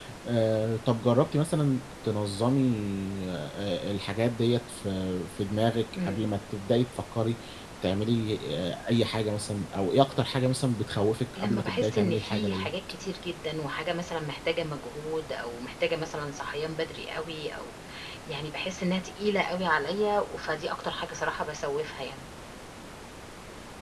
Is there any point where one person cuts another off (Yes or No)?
Yes